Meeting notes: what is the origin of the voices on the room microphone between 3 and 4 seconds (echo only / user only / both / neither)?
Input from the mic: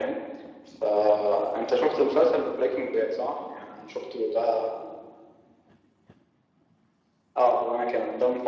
echo only